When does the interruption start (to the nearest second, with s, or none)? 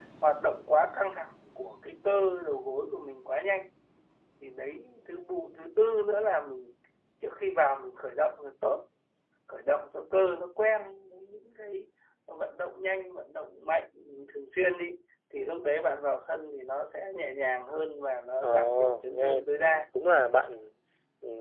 18 s